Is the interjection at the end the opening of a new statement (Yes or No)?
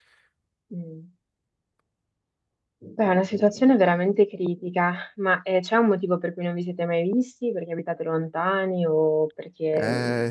Yes